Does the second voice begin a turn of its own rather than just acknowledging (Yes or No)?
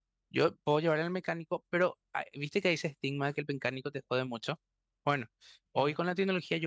No